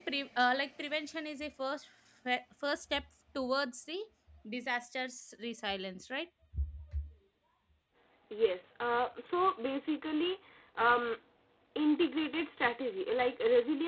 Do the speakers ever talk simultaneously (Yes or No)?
No